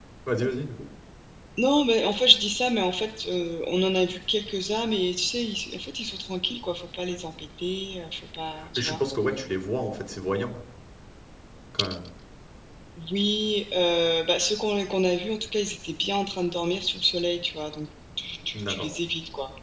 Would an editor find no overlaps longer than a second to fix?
Yes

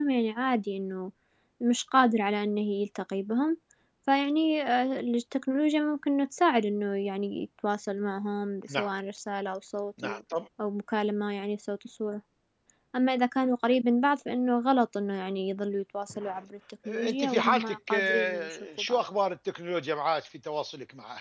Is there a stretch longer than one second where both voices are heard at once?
Yes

